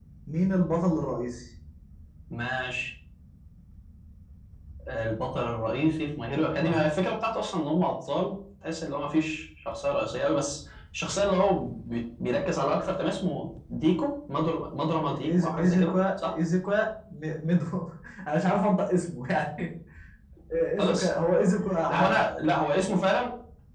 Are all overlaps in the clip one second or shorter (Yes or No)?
No